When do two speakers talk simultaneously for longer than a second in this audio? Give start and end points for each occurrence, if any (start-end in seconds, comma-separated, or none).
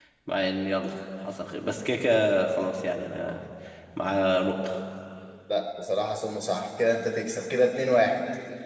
none